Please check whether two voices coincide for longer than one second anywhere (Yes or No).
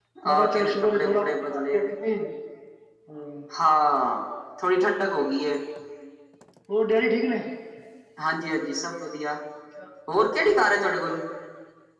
Yes